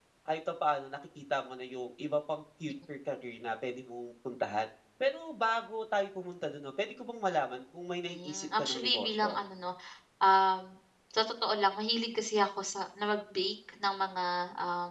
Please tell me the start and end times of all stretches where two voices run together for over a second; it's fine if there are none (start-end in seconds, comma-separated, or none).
8.1-9.4